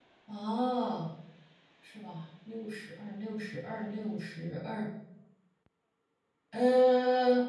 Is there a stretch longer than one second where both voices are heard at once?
No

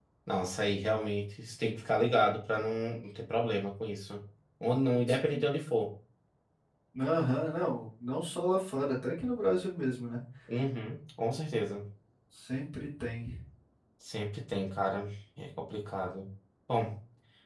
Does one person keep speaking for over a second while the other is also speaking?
No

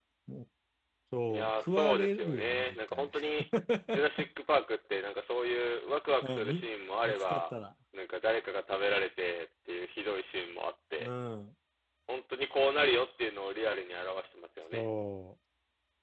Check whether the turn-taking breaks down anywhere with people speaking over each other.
Yes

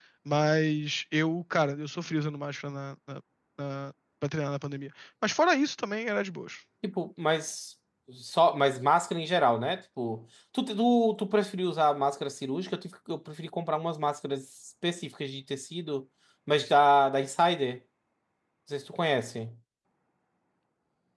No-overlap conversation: Yes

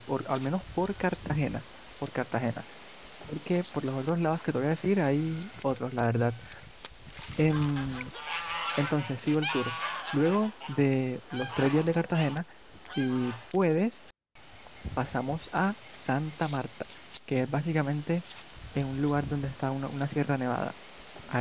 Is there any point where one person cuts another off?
No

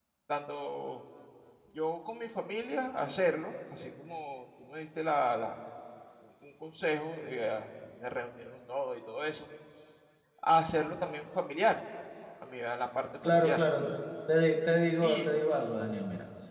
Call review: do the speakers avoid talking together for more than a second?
Yes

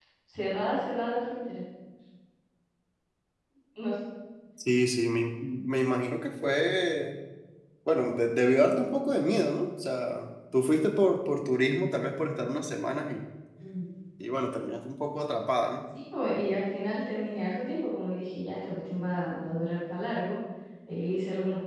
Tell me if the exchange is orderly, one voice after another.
Yes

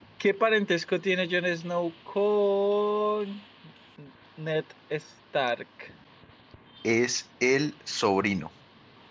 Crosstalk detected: No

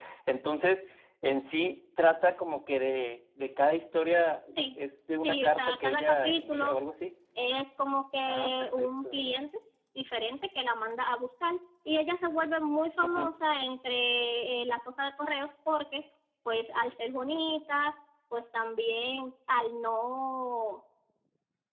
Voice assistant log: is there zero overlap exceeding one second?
No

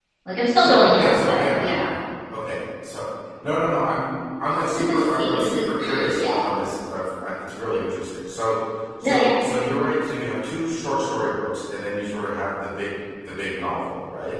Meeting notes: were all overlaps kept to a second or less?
No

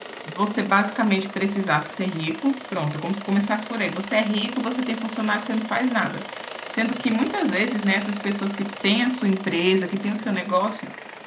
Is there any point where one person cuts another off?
No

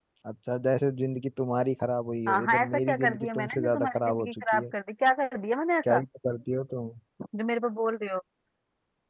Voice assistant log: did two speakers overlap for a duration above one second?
Yes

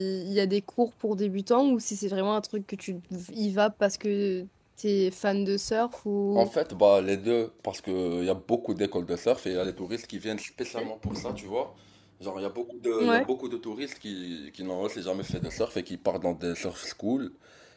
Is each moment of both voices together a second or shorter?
Yes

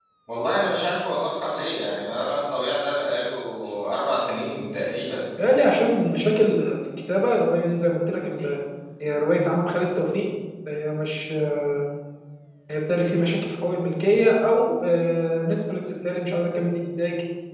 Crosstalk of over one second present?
No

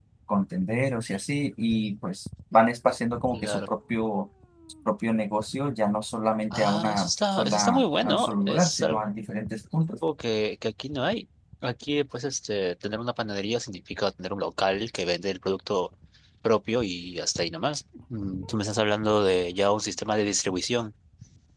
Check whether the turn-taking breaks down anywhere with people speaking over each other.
Yes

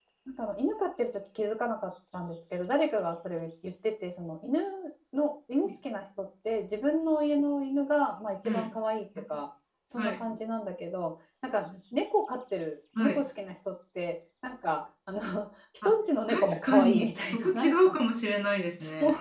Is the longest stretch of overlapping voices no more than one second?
No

